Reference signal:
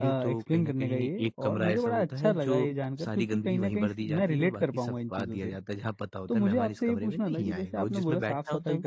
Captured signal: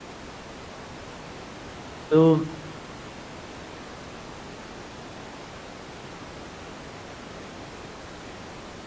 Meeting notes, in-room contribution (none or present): present